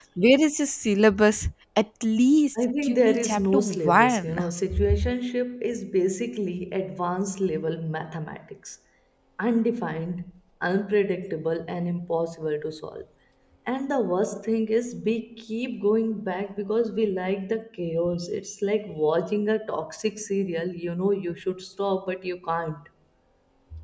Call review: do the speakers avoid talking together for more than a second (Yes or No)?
No